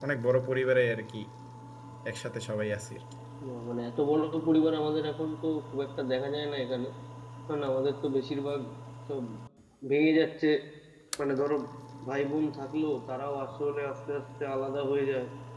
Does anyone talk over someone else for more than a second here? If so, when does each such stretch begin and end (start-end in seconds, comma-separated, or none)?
none